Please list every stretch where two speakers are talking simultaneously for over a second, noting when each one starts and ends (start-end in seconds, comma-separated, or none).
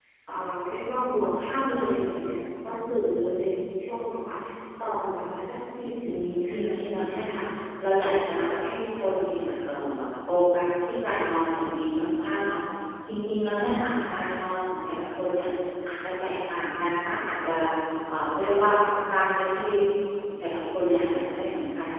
6.0-7.4